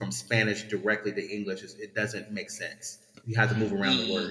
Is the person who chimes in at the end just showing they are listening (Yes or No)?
No